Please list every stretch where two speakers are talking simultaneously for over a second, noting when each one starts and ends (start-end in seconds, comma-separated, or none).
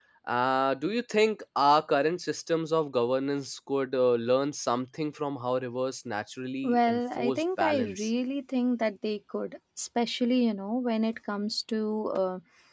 6.6-8.1